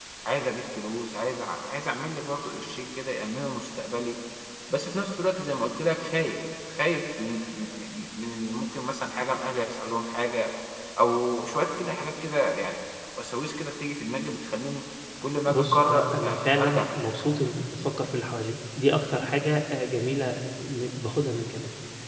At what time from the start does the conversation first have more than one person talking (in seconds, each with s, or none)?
15.4 s